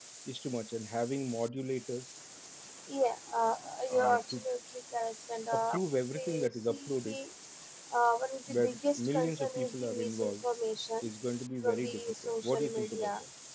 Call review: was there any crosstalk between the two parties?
Yes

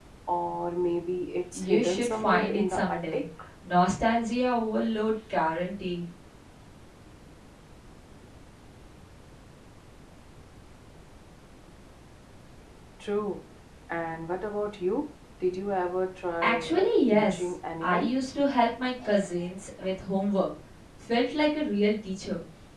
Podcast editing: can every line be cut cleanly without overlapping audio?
No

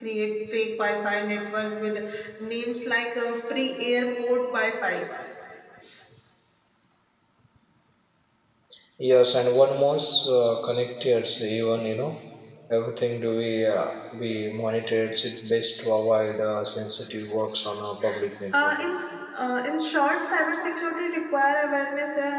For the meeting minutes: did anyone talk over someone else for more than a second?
No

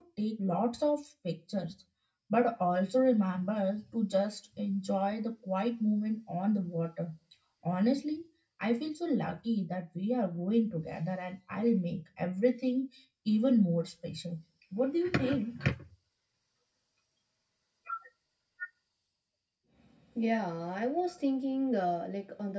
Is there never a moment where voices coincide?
Yes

